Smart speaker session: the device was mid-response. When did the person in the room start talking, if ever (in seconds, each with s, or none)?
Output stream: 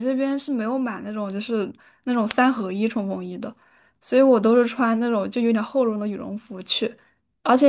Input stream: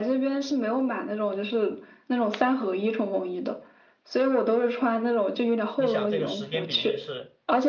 5.8 s